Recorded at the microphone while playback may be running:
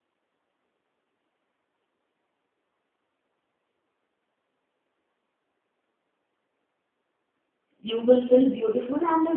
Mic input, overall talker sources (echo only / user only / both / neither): user only